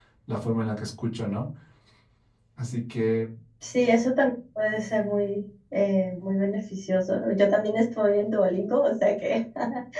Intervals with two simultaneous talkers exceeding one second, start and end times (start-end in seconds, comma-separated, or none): none